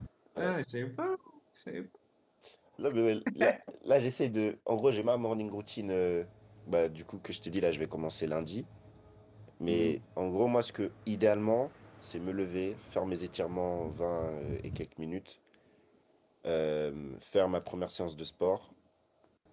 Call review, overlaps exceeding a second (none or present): none